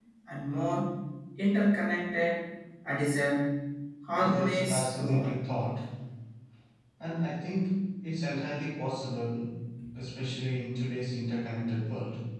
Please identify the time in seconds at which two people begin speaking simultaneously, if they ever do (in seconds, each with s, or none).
4.2 s